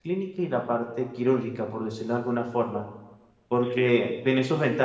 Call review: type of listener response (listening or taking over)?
listening